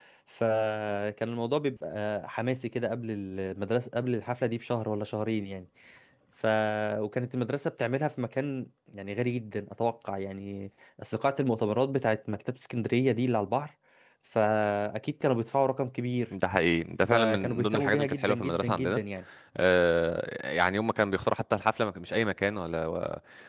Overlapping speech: Yes, from 17.1 s

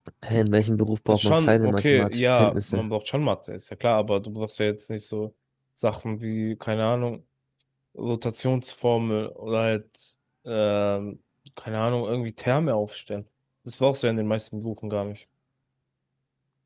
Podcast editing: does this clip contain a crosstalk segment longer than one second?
Yes, from 1.1 s

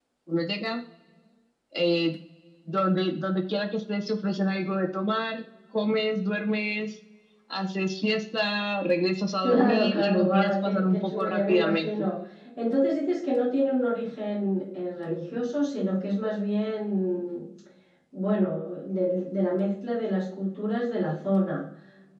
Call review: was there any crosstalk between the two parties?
Yes, from 9.4 s

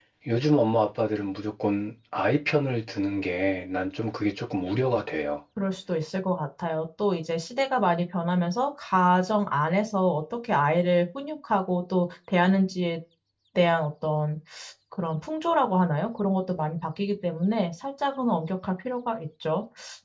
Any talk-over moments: No

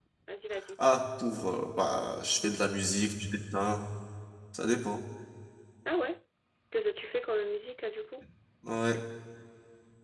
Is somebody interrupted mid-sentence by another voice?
No

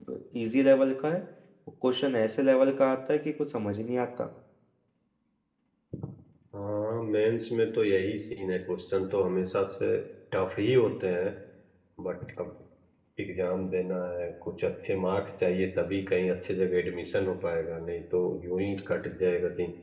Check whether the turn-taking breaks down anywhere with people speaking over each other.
No

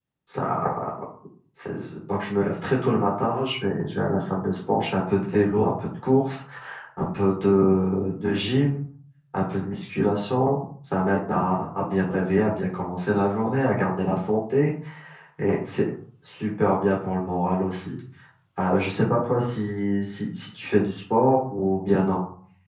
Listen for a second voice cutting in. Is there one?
No

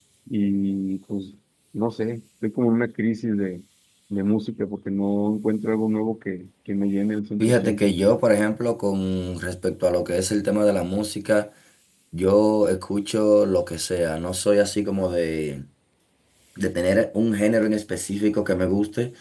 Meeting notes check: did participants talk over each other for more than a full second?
No

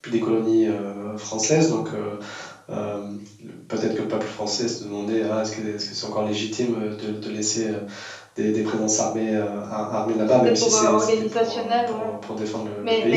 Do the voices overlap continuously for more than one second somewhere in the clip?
Yes, from 10.2 s

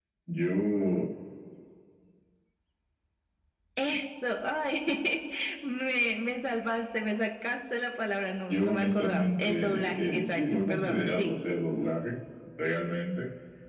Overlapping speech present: Yes, from 8.5 s

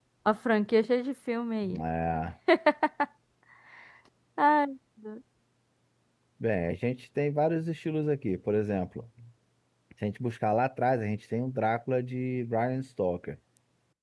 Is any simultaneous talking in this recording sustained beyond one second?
No

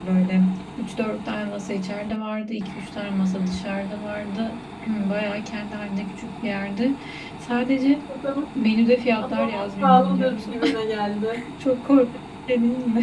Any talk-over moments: Yes, from 9.3 s

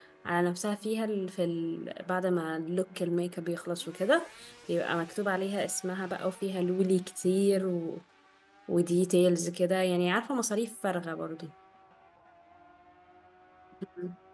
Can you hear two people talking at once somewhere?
No

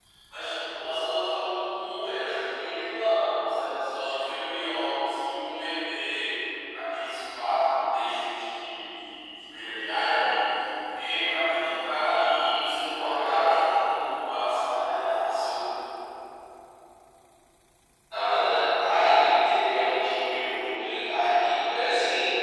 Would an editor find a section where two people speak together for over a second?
No

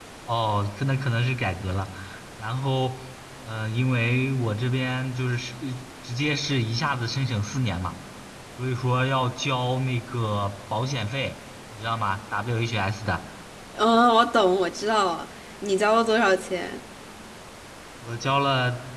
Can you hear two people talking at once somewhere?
No

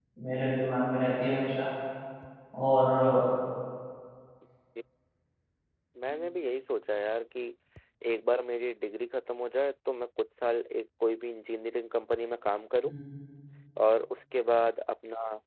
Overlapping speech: No

